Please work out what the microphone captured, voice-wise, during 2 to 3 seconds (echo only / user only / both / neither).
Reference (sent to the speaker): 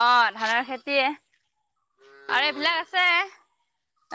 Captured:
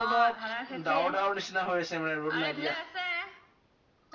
both